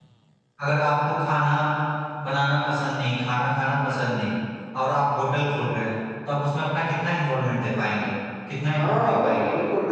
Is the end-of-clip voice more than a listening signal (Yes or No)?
Yes